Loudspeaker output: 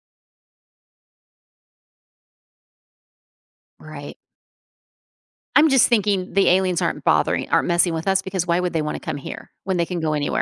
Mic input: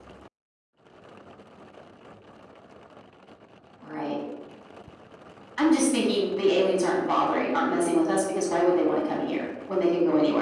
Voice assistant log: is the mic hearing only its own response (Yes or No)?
Yes